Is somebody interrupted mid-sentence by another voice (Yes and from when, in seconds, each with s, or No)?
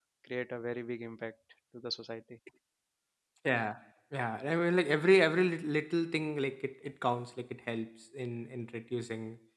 No